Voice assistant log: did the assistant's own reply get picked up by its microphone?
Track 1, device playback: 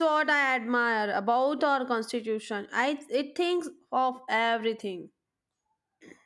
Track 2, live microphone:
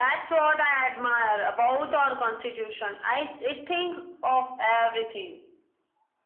Yes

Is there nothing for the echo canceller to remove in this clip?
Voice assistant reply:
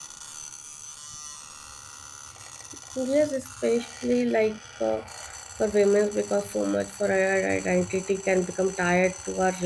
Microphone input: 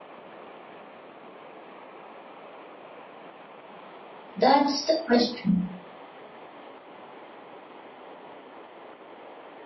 Yes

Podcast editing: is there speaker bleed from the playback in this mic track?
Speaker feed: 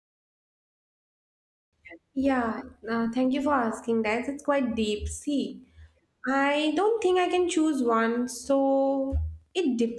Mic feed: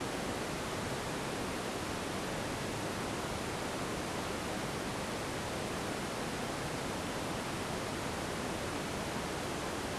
No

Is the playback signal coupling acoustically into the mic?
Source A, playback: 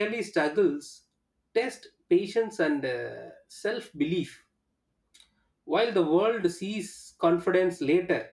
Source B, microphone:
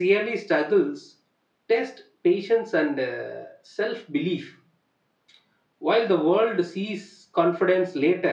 Yes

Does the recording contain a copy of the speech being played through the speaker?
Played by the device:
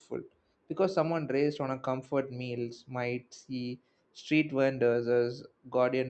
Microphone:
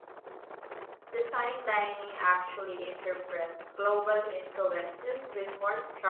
No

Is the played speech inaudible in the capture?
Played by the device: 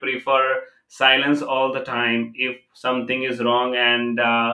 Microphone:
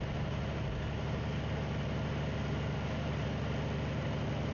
Yes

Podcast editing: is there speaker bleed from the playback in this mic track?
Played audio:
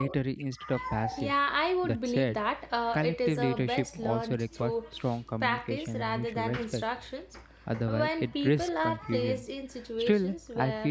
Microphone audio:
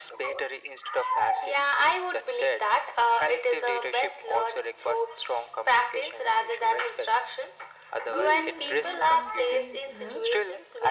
Yes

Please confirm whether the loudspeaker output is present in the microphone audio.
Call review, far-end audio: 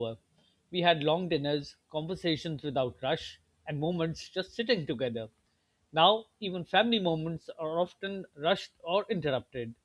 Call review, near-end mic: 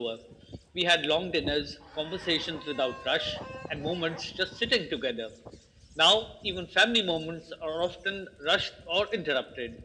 Yes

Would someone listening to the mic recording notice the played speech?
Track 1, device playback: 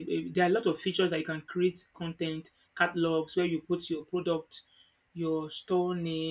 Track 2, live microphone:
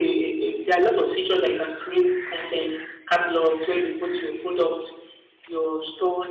Yes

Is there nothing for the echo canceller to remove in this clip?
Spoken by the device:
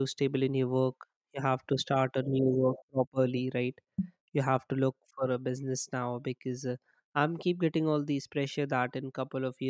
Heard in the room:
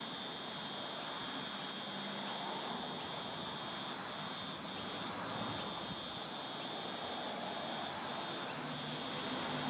Yes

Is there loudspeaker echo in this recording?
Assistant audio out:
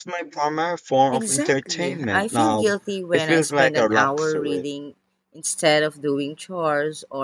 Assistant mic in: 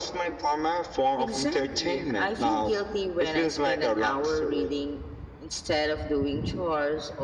Yes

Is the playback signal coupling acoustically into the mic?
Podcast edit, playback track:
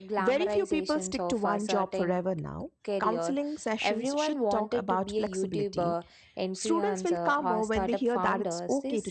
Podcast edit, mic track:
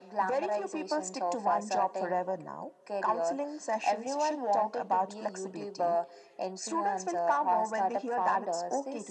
Yes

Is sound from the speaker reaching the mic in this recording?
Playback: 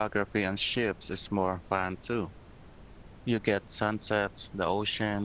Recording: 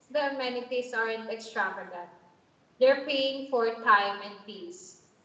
No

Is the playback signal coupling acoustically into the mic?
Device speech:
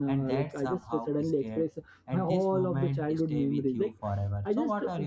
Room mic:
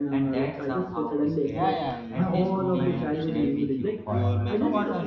Yes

